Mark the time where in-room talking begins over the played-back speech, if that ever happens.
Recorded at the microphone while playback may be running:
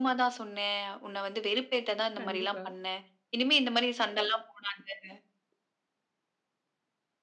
2 s

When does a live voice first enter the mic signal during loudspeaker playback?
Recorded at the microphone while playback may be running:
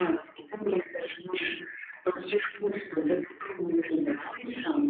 none

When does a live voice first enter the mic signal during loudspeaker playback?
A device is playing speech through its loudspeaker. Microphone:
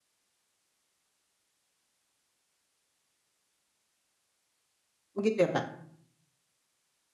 5 s

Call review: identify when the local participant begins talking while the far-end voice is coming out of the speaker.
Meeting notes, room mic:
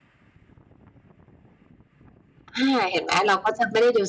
3 s

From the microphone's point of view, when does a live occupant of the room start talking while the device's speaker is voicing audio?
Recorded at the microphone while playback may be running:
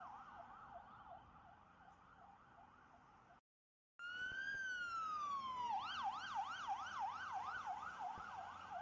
none

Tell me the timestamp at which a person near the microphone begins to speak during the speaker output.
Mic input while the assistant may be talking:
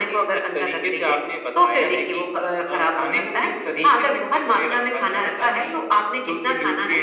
none

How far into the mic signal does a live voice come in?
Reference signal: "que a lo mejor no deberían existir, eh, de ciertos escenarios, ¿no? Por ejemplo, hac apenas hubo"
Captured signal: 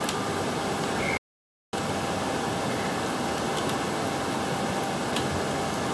none

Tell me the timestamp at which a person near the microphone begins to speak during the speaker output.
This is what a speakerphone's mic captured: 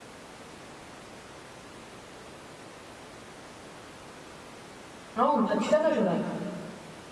5 s

